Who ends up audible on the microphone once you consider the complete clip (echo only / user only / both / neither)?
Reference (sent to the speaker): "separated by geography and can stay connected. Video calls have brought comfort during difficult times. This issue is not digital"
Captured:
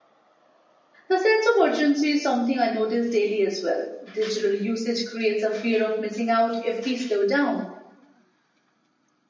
user only